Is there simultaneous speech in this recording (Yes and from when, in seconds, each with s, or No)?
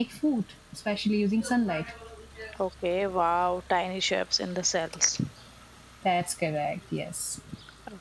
No